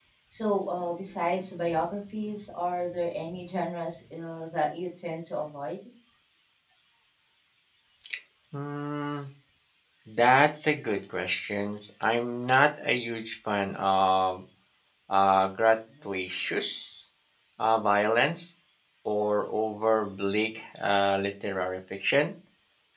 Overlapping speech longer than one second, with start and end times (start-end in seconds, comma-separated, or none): none